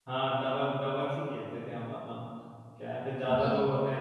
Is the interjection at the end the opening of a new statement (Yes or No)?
No